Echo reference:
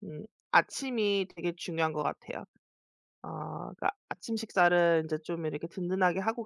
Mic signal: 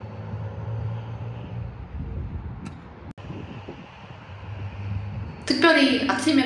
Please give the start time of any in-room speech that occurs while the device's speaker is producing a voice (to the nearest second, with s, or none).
5 s